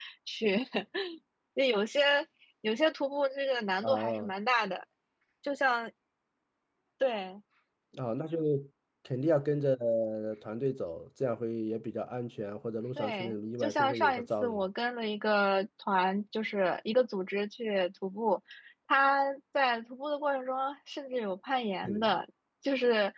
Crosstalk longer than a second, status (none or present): present